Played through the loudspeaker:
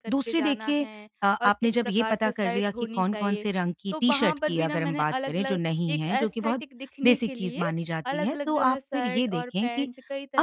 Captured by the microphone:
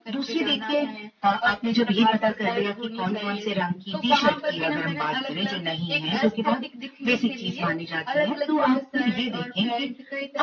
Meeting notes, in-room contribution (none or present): none